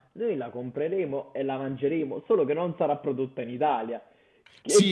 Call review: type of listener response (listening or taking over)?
taking over